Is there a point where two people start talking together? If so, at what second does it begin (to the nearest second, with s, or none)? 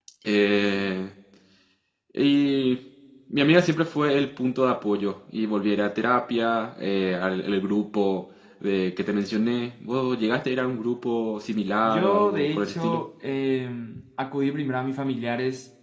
12 s